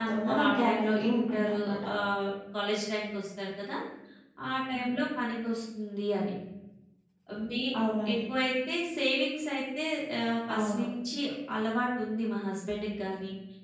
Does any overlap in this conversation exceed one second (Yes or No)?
Yes